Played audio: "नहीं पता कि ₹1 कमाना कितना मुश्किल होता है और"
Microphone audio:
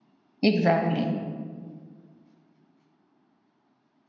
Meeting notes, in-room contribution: present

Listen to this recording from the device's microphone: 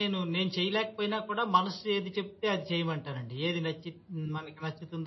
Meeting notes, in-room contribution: present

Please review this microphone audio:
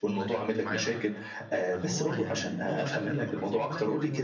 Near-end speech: present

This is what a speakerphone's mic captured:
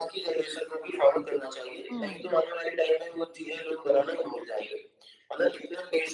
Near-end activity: present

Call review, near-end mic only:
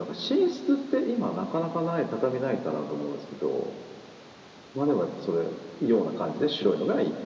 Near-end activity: none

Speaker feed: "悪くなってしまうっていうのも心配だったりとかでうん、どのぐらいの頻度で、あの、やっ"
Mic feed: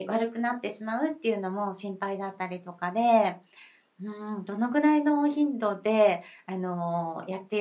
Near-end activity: none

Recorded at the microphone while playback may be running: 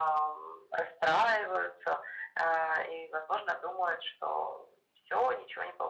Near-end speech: none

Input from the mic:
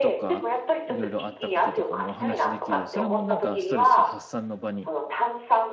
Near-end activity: present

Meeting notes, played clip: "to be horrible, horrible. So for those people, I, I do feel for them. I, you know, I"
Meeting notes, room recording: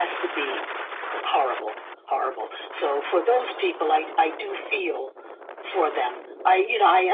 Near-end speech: none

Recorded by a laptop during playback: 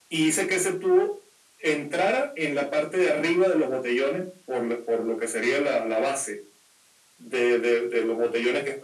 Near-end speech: none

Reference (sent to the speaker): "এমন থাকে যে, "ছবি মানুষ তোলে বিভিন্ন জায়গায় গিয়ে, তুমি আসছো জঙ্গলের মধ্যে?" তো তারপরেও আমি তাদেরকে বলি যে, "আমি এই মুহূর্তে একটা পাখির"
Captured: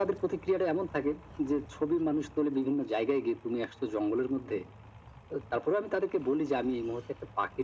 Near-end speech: none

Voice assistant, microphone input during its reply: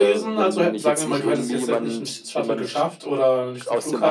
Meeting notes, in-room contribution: present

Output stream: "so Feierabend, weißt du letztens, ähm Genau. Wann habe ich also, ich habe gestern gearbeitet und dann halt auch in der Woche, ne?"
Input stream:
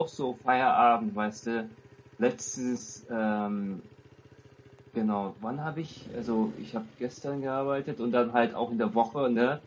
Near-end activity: none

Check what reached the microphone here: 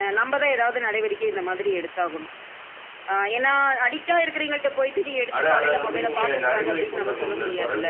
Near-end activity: present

